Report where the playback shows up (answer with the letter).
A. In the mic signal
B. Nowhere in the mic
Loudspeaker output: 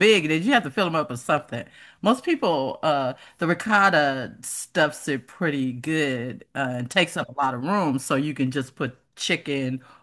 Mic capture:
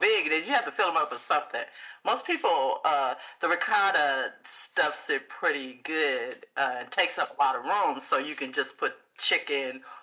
A